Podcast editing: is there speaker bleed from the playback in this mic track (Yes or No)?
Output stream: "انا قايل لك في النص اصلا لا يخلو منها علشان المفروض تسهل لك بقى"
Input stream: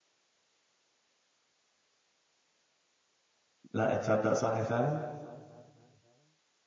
No